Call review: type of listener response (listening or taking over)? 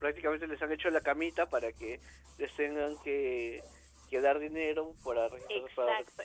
taking over